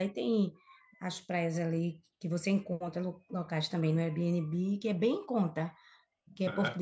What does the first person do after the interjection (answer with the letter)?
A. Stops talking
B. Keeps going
B